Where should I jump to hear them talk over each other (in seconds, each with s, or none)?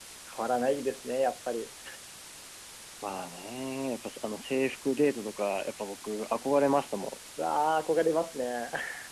none